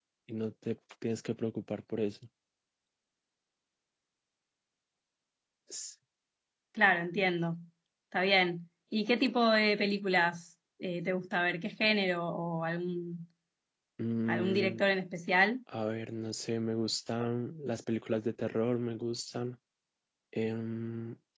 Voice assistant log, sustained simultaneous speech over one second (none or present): none